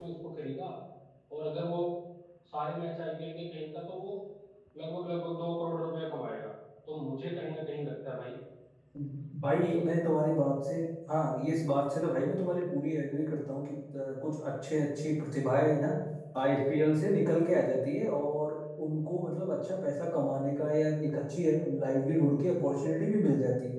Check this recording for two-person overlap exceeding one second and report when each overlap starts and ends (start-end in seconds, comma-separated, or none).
none